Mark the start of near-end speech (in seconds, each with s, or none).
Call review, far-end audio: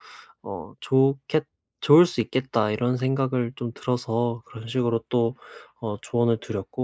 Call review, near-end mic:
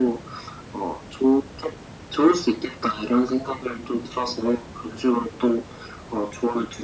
none